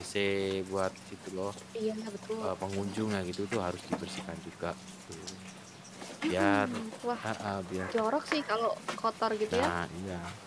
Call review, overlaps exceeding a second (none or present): none